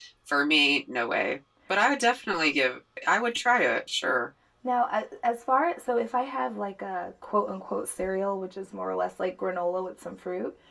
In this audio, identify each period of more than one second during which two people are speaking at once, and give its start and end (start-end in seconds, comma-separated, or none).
none